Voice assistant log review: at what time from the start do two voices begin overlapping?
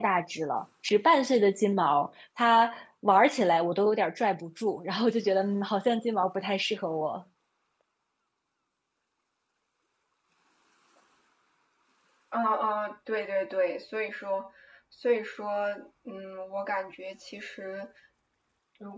none

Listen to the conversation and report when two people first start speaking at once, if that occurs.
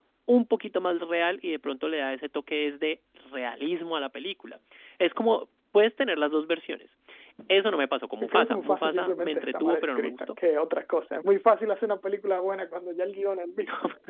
8 s

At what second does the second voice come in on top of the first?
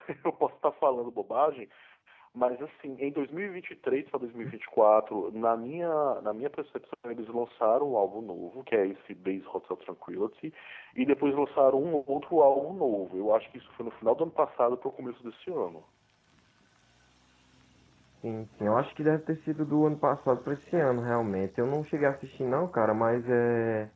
none

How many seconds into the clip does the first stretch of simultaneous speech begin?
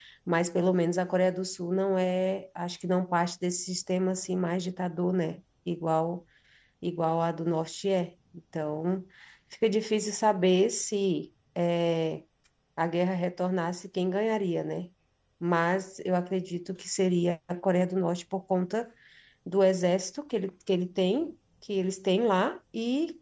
none

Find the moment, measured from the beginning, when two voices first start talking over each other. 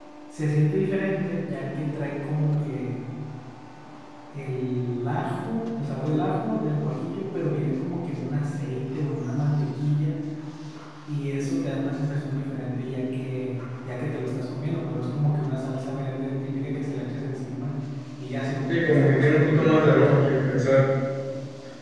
19 s

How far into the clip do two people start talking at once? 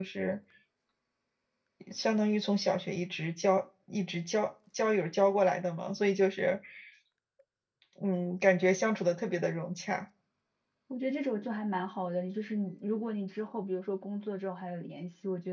none

